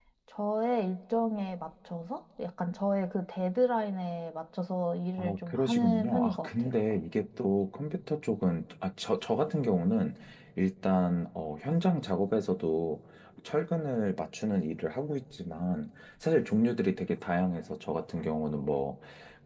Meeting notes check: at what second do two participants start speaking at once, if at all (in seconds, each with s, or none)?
5.2 s